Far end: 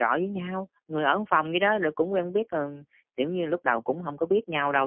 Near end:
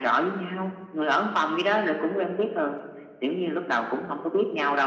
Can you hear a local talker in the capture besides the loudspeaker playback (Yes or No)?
No